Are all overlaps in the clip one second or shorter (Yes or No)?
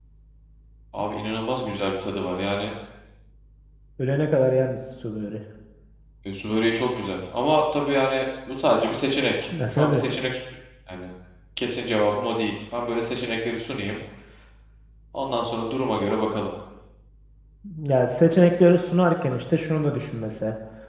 Yes